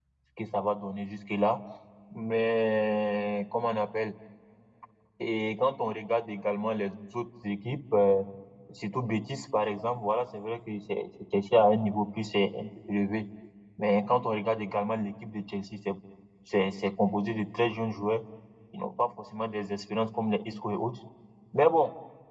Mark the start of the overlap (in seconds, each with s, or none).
none